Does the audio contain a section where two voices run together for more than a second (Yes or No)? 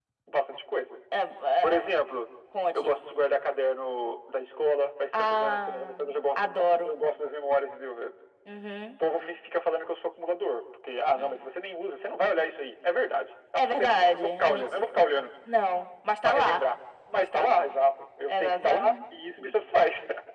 Yes